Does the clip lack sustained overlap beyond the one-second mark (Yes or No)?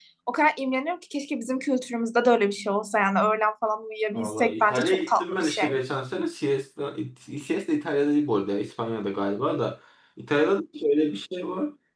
No